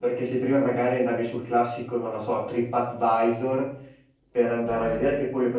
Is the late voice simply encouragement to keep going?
Yes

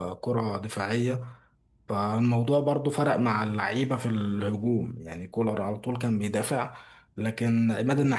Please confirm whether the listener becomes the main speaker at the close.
No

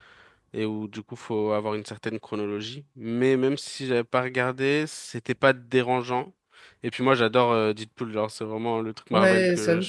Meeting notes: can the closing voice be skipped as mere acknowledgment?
No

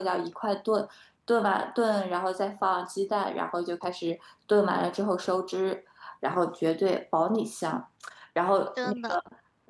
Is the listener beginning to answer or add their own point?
No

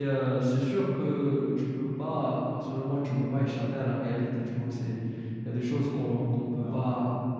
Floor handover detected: No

